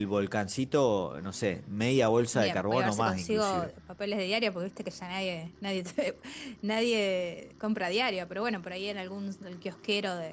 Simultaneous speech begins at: 2.3 s

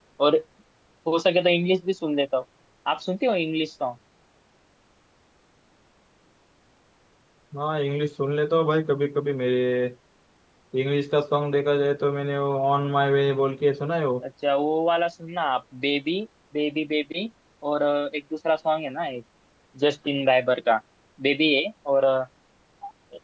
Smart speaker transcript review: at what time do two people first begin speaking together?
none

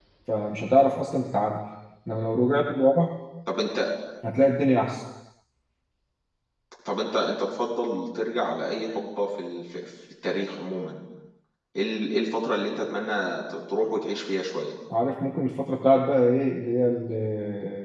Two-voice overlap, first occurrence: none

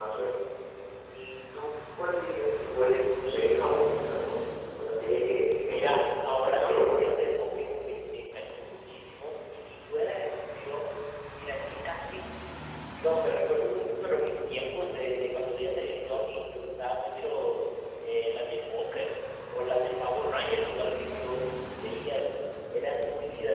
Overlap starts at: 5.6 s

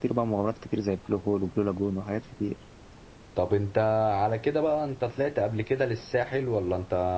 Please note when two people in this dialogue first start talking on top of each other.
none

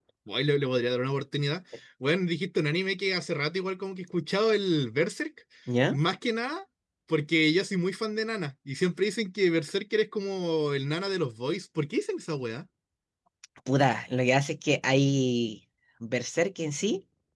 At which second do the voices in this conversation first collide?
none

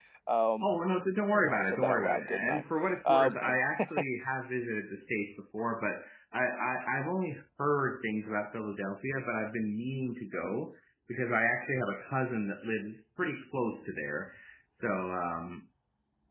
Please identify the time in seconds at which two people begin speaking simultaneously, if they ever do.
1.4 s

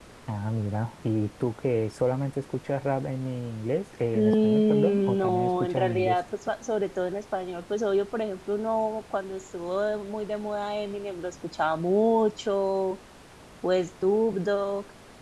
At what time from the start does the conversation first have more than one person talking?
4.1 s

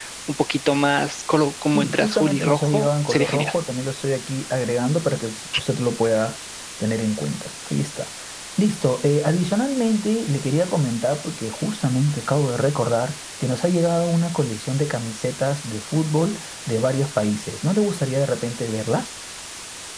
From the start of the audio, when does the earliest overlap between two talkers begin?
1.7 s

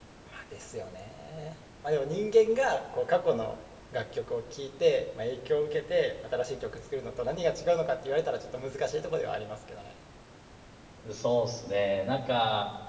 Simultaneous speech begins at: none

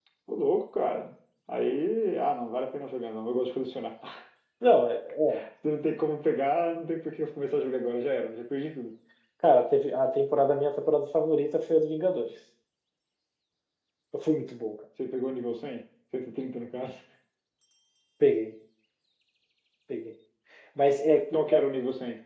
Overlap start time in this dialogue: none

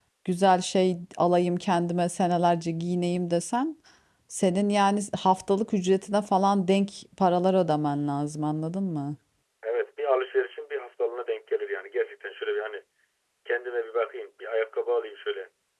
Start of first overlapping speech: none

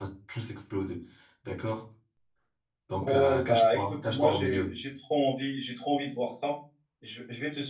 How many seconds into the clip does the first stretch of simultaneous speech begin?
3.0 s

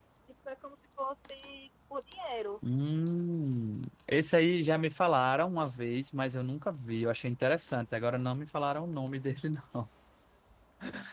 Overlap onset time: none

